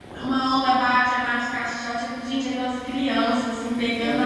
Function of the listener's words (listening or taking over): listening